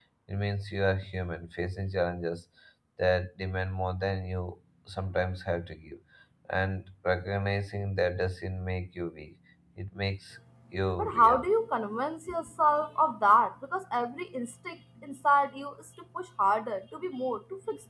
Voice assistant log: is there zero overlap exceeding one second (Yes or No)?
Yes